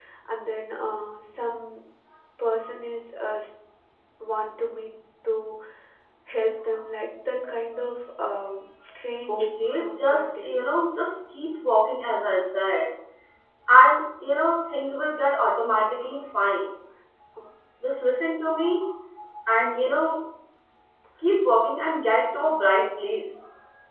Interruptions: present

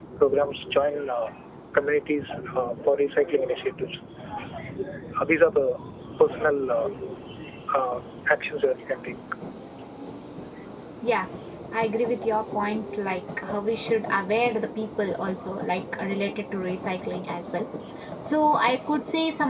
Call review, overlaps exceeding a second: none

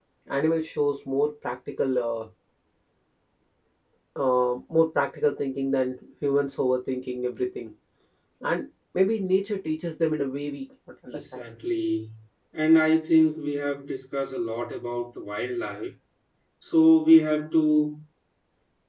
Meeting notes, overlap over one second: none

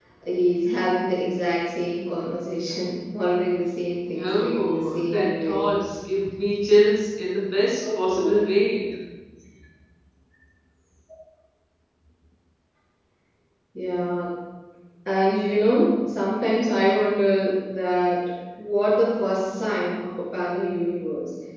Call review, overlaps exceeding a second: present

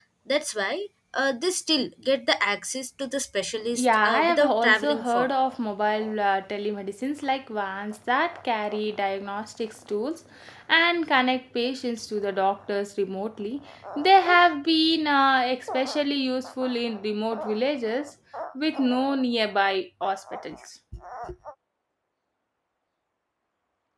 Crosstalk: present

